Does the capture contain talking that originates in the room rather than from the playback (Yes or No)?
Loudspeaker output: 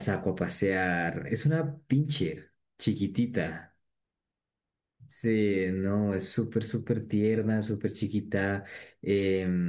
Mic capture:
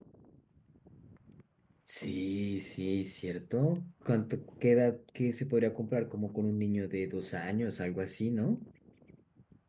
Yes